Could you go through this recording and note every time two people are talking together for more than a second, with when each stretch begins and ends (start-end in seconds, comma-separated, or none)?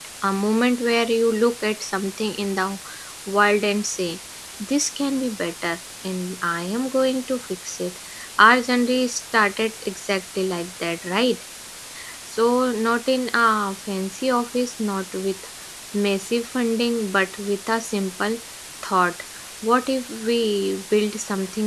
none